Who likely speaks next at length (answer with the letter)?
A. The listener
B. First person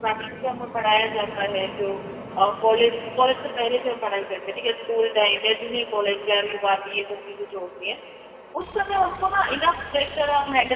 B